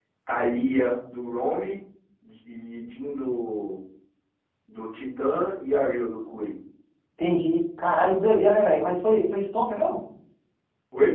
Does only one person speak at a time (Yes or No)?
Yes